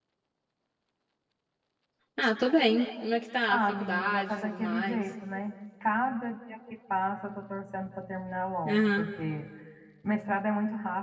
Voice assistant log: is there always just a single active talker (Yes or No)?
No